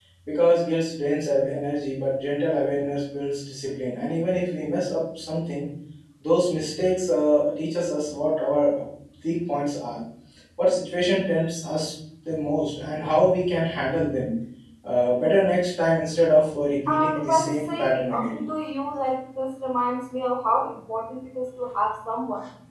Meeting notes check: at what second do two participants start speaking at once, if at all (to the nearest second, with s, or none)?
17 s